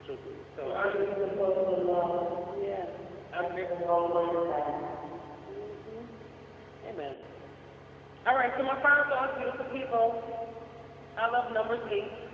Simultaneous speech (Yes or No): Yes